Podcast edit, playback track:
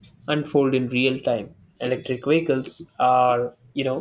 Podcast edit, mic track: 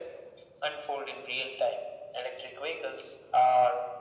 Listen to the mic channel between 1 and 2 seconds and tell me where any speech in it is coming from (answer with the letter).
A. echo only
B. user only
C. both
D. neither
A